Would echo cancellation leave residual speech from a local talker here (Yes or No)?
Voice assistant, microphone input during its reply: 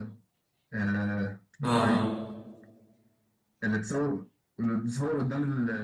Yes